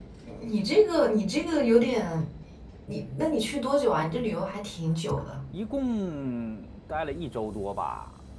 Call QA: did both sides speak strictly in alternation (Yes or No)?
Yes